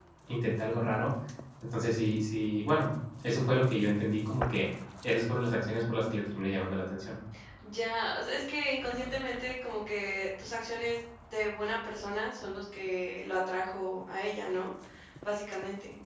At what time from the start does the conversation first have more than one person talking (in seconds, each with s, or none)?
none